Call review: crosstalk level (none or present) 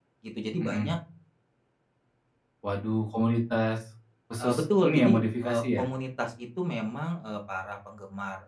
present